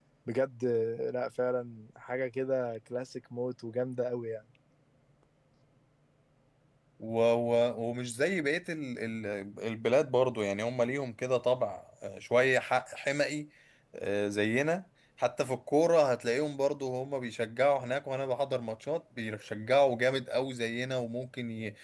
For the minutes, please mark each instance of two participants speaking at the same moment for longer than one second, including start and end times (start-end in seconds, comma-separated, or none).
none